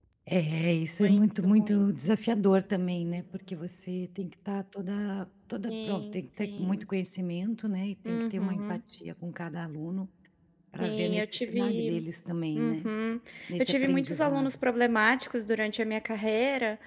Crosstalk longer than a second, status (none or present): present